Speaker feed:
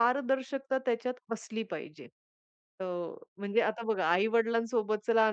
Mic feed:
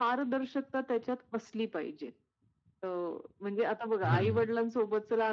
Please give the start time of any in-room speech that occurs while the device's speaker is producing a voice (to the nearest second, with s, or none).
4 s